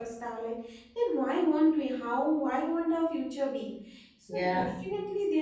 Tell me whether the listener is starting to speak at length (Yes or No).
No